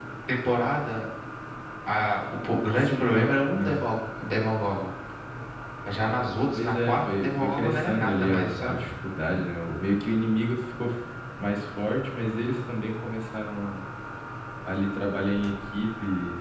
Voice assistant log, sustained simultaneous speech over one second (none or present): present